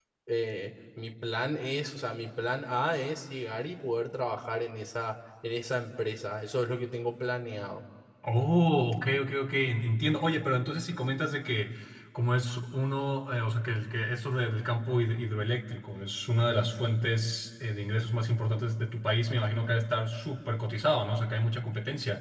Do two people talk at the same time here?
No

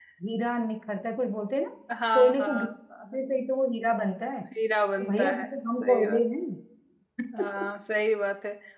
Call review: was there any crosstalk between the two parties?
Yes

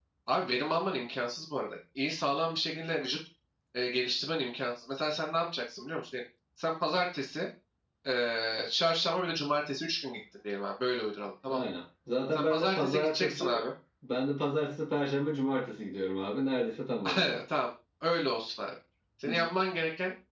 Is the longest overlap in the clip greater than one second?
Yes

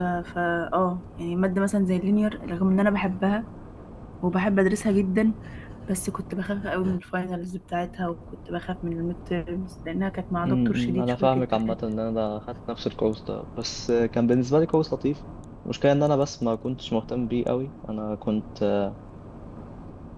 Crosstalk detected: Yes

